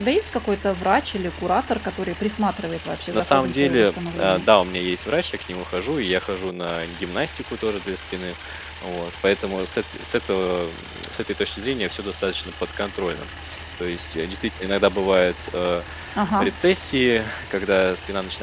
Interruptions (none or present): present